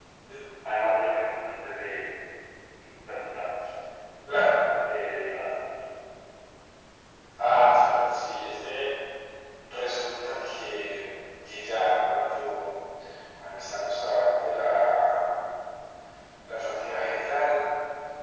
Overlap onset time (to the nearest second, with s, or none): none